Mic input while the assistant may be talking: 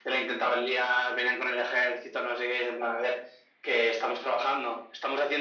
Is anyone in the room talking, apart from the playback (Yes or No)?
No